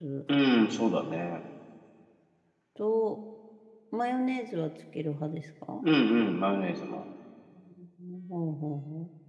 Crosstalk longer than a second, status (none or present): none